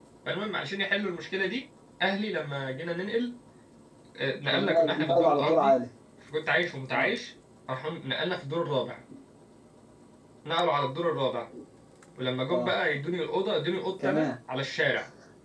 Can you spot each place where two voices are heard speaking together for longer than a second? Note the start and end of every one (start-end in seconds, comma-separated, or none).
4.5-5.7